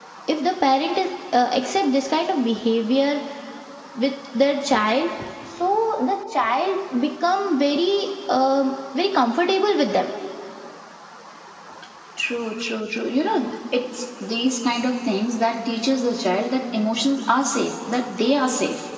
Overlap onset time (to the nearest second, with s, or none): none